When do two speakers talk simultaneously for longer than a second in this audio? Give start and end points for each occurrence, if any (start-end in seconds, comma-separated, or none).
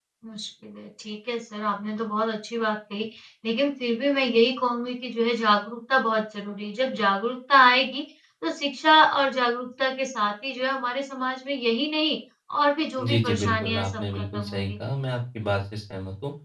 13.1-14.7